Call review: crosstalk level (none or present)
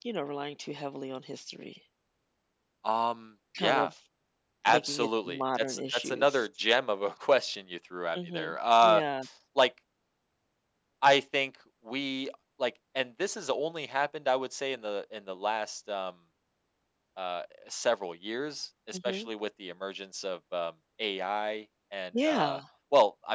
present